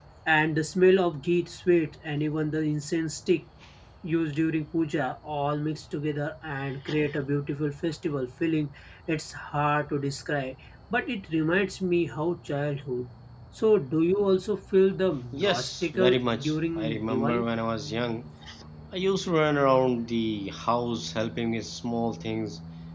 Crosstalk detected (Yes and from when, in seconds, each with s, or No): Yes, from 15.3 s